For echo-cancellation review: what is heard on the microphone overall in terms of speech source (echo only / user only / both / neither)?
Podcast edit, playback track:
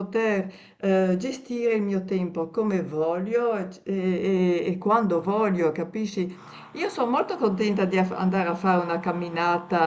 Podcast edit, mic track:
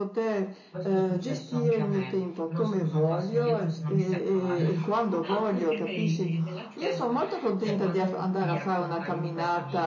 both